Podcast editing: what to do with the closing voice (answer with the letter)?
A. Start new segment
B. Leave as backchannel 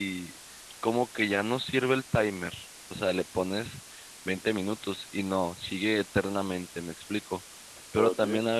B